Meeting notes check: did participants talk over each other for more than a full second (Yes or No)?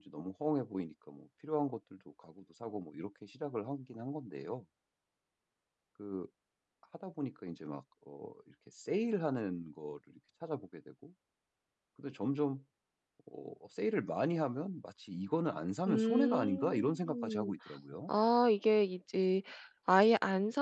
Yes